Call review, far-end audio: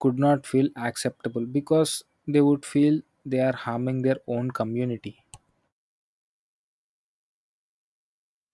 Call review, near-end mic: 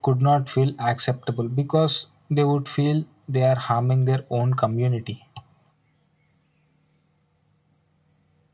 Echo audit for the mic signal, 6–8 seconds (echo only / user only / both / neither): neither